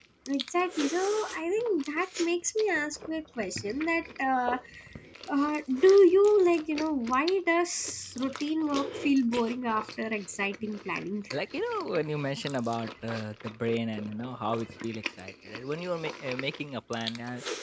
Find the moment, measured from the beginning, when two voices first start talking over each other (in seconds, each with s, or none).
none